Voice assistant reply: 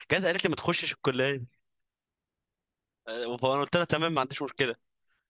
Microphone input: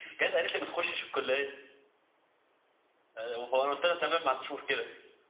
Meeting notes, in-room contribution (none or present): none